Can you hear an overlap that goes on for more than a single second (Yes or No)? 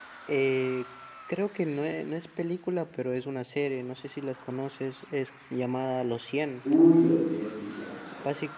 No